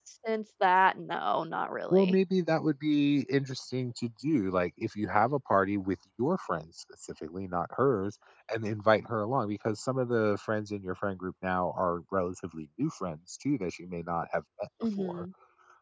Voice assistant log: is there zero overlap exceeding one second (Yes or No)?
Yes